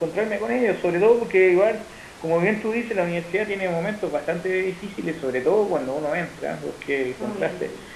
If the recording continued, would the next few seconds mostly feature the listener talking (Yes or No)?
No